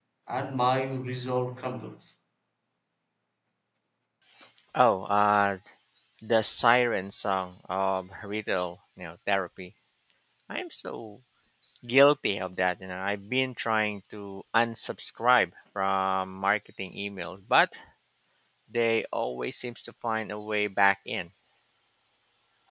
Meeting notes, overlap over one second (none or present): none